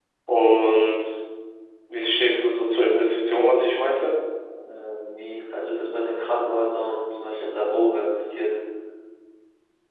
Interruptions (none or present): none